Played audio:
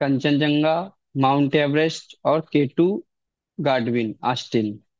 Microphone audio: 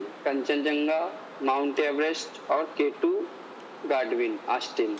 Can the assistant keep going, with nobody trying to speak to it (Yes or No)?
Yes